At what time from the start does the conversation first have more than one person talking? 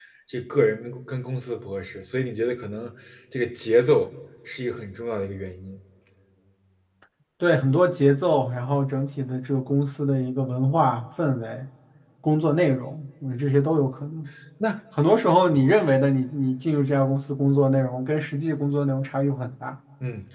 none

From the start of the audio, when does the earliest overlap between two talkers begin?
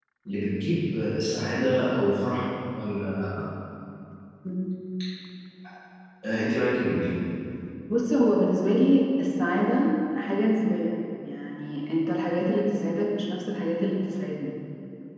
none

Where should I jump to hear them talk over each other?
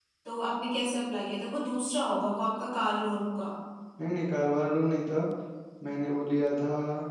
none

